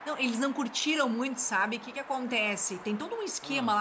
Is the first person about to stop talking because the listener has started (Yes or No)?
No